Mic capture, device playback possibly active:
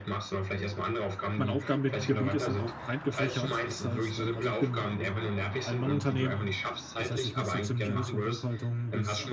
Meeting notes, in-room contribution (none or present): present